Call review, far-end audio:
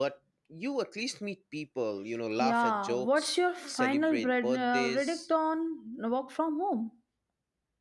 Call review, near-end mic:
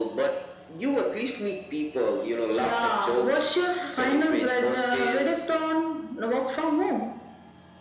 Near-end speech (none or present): none